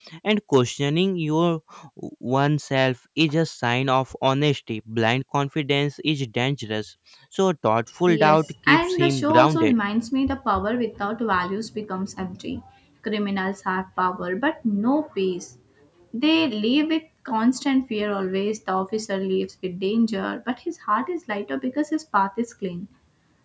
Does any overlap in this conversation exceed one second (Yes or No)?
Yes